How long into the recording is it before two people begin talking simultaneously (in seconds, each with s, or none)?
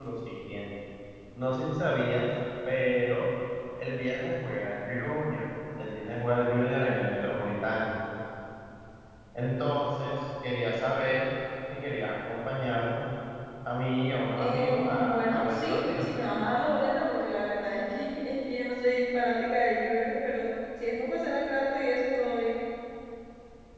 14.4 s